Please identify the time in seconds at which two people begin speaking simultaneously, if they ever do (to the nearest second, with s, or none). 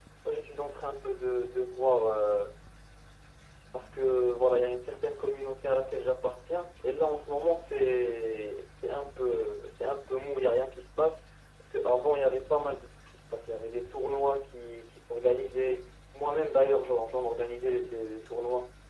none